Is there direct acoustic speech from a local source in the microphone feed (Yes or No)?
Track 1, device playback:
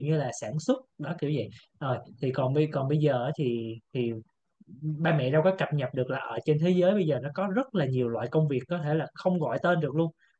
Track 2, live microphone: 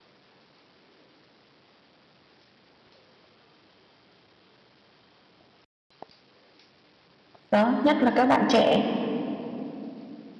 Yes